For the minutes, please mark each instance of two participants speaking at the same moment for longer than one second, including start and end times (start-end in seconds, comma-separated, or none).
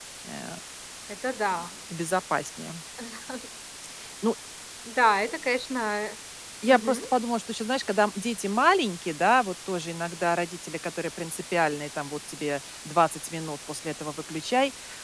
none